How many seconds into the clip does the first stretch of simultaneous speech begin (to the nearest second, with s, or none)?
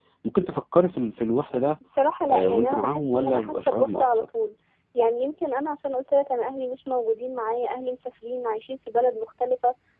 2 s